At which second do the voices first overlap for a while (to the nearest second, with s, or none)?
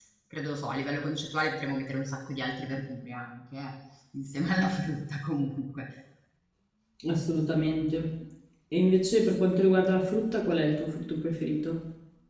none